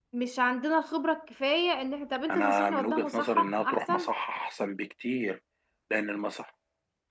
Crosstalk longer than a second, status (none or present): present